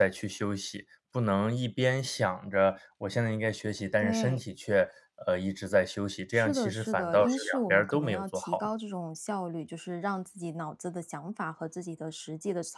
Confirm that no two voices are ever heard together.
No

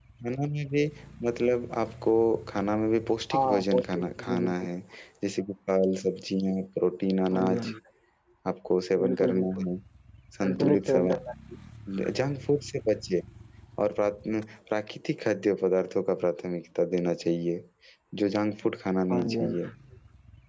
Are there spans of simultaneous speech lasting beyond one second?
Yes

